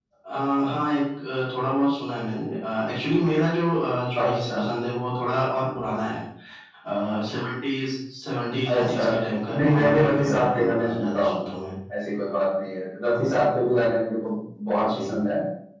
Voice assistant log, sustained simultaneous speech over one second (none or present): present